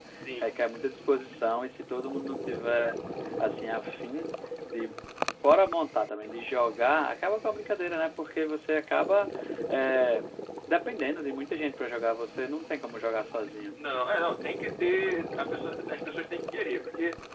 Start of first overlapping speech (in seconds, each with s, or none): none